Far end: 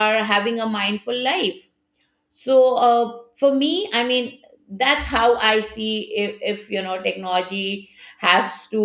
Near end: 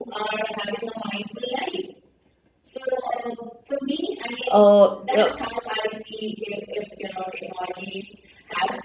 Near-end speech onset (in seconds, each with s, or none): 4.5 s